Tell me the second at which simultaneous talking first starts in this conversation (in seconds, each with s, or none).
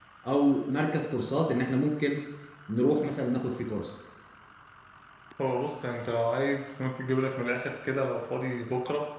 none